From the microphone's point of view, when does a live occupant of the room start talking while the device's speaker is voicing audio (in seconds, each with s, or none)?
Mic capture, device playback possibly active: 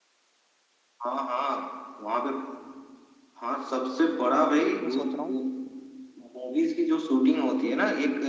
4.3 s